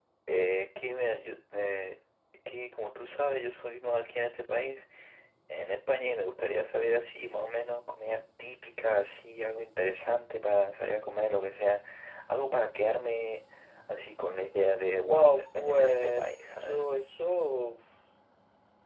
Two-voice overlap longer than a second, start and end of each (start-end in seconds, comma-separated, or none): 15.0-16.8